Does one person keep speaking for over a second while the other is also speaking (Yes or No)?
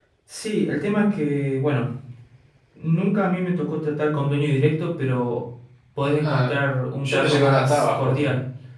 Yes